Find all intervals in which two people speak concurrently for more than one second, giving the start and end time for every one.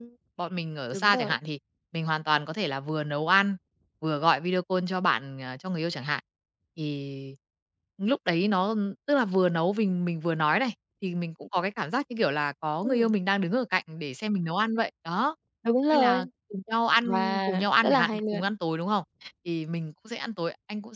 17.0-18.4

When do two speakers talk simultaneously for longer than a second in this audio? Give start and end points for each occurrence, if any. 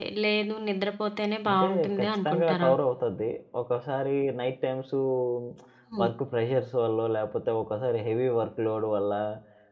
1.5-2.7

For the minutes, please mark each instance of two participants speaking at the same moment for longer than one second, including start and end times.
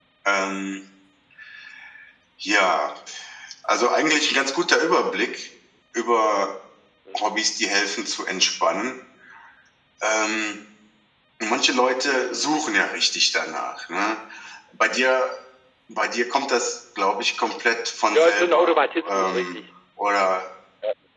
18.1-19.5

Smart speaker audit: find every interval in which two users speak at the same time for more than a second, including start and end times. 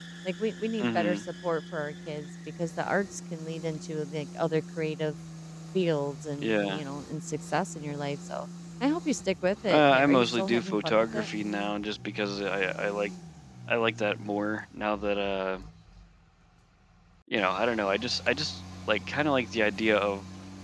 9.7-11.3

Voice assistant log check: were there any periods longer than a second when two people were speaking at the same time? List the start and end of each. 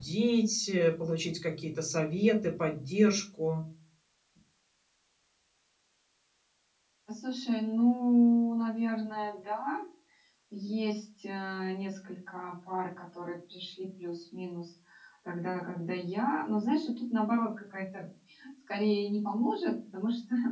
none

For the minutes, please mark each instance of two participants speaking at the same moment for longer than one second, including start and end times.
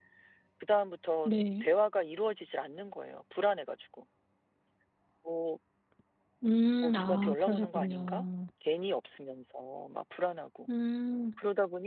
6.8-8.2

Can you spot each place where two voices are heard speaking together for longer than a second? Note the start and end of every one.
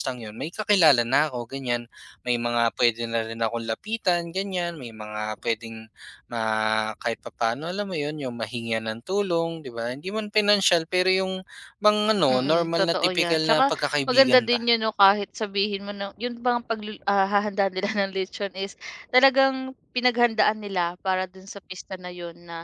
12.3-14.6

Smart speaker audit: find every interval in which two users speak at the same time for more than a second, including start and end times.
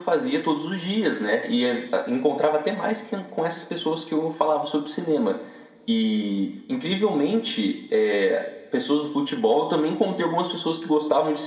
none

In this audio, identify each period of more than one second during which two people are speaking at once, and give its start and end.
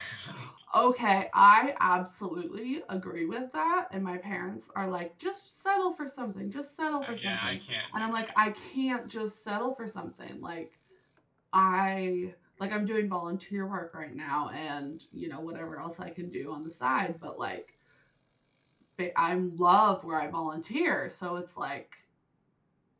7.0-8.3

